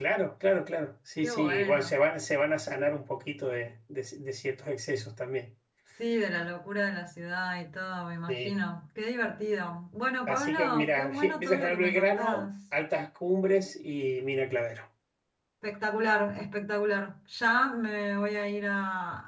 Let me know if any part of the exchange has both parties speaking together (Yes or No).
Yes